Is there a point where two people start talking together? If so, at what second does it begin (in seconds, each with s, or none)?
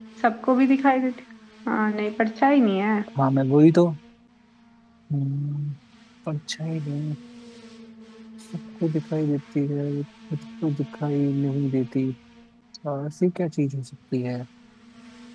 none